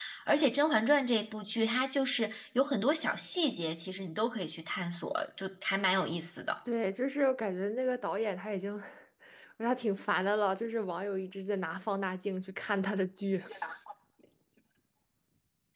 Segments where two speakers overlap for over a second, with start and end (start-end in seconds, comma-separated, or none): none